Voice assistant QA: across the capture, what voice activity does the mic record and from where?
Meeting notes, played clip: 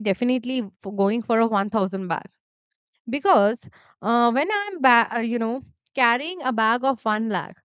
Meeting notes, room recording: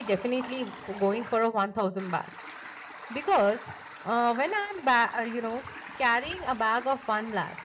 echo only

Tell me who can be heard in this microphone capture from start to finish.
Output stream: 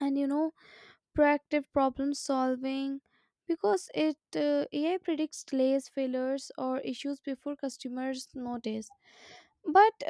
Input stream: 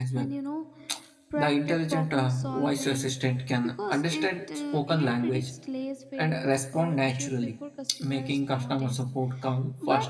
both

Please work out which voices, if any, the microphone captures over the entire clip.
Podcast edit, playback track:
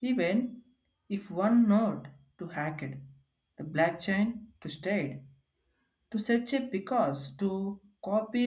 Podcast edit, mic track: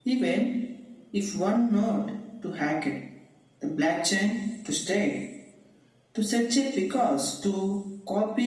echo only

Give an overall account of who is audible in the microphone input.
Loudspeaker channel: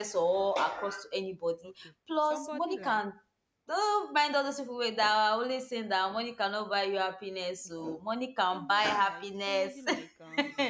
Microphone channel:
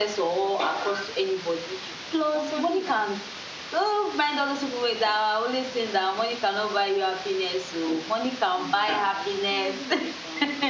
echo only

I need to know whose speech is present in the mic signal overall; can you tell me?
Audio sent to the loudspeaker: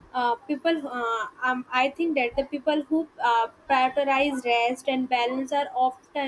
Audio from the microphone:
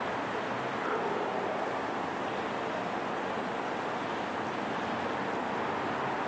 neither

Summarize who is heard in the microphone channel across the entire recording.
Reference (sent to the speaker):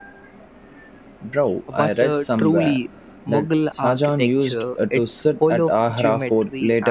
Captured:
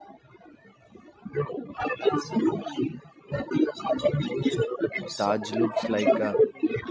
both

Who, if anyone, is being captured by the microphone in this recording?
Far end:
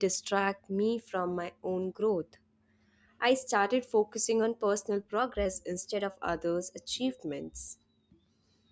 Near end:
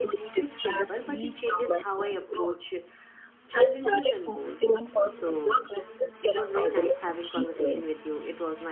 both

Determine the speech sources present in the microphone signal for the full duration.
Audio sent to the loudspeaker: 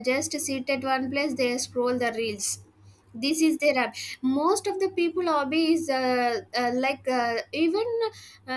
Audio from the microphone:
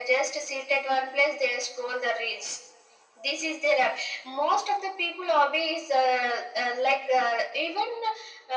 echo only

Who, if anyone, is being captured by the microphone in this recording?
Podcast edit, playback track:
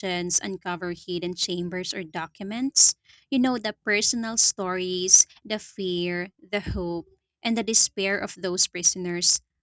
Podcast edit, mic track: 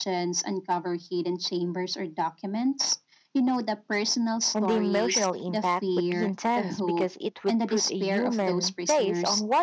both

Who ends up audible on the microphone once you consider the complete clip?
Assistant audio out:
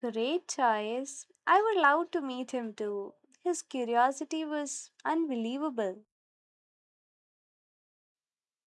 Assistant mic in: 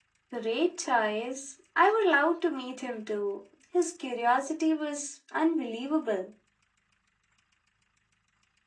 echo only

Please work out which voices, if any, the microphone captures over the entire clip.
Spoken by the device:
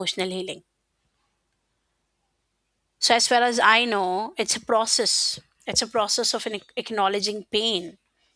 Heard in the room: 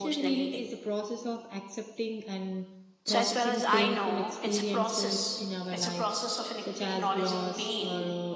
both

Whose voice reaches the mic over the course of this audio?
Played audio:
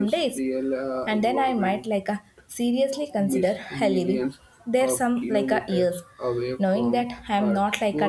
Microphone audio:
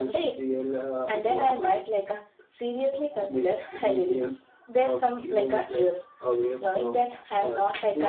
echo only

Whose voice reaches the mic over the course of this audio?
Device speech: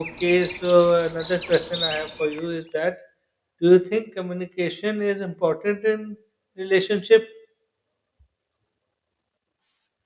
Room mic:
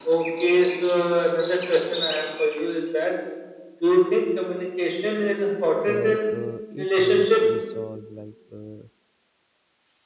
both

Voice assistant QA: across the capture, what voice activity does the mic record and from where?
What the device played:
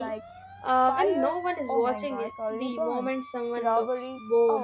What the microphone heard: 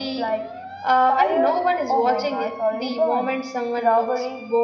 echo only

